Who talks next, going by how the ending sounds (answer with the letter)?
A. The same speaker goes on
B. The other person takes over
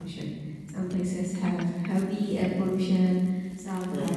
A